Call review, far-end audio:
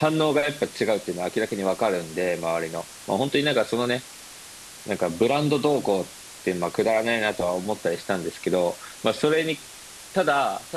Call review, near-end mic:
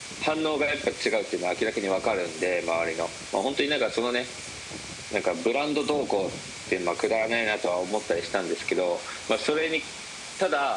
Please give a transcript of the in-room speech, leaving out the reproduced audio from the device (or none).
none